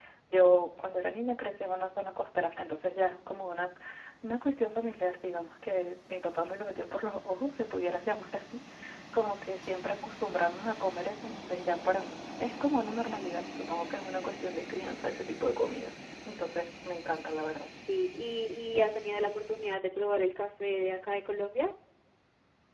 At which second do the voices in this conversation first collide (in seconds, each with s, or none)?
none